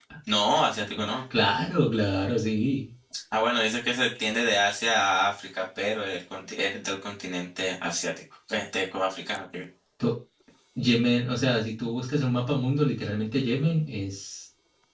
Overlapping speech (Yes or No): No